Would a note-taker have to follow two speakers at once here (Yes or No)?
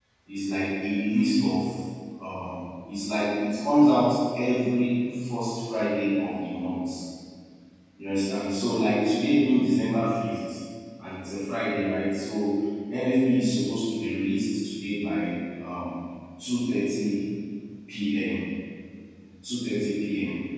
No